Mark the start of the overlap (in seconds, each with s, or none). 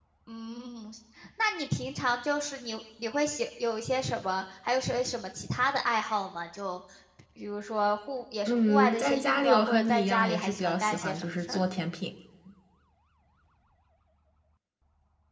8.5 s